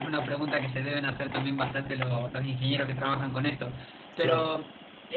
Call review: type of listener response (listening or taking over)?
listening